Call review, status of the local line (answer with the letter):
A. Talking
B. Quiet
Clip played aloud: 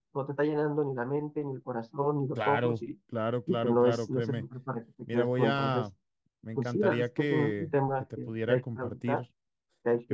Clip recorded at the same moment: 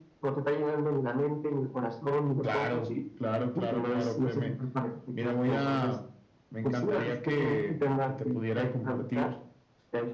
B